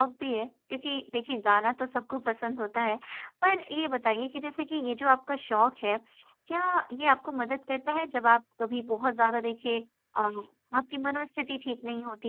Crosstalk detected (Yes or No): No